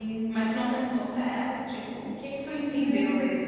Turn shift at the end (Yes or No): Yes